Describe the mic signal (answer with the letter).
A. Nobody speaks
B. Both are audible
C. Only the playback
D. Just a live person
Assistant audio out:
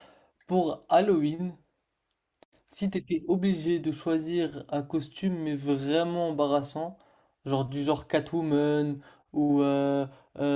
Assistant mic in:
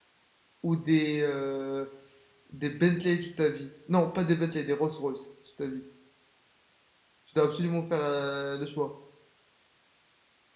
D